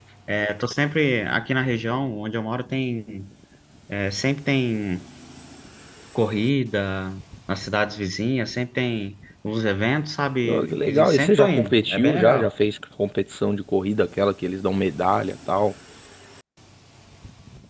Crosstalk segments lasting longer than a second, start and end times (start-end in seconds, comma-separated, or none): 10.4-12.5